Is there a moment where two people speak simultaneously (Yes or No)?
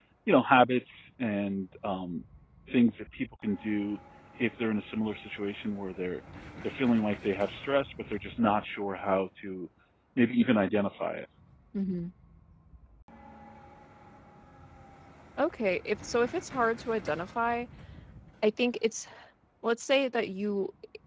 No